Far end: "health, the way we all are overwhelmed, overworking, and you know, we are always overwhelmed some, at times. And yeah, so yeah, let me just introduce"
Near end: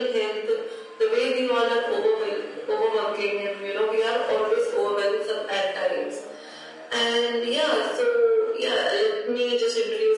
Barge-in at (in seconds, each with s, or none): none